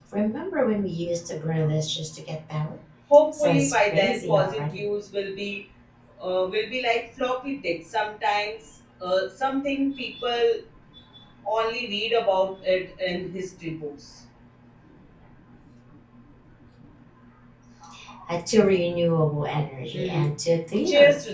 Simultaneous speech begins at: 3 s

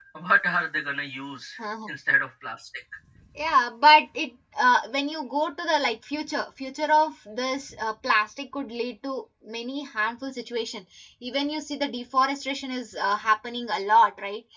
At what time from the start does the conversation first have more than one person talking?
none

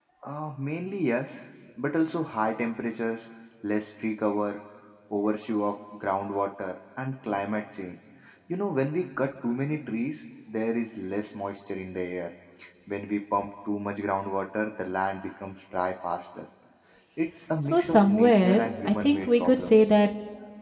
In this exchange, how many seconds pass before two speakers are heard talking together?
18 s

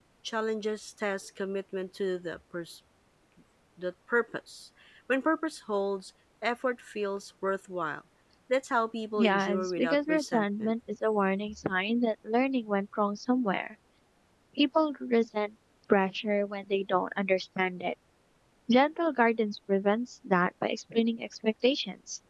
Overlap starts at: 9 s

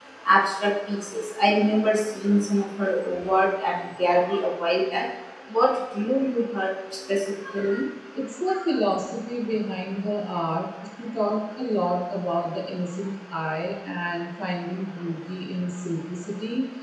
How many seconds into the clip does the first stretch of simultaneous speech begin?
none

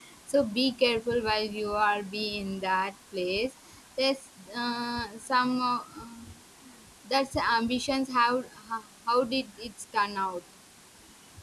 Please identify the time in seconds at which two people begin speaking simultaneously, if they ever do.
none

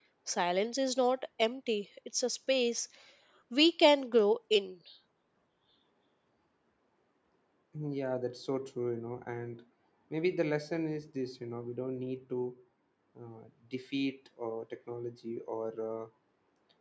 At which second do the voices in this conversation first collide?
none

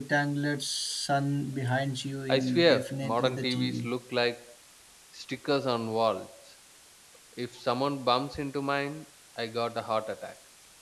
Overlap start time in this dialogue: 2 s

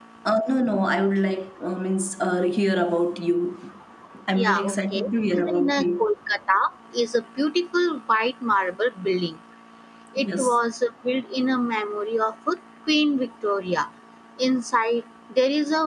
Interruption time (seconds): 4 s

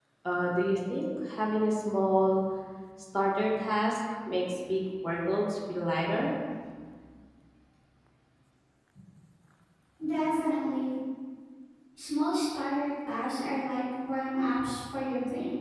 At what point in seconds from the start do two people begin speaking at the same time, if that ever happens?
none

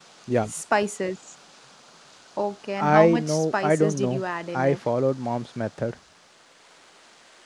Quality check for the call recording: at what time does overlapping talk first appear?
3 s

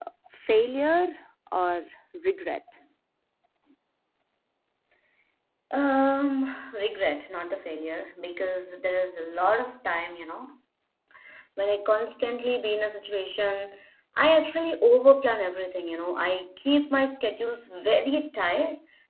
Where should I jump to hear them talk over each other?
none

